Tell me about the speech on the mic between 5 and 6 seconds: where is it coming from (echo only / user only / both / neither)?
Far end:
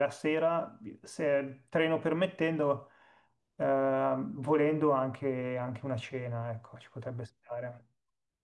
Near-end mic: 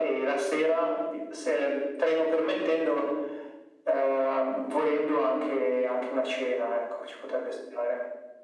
echo only